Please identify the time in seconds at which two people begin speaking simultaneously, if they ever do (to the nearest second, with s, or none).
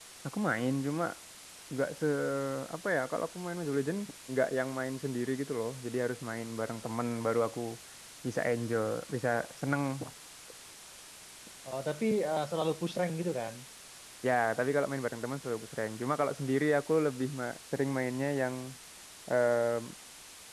none